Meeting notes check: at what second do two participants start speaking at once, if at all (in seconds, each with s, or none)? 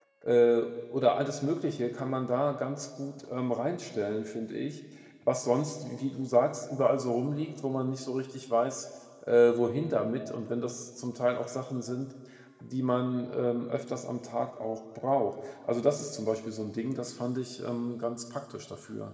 none